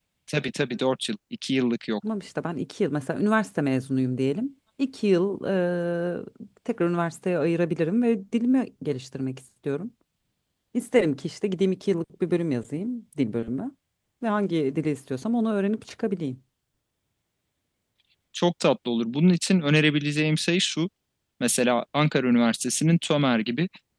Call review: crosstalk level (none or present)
none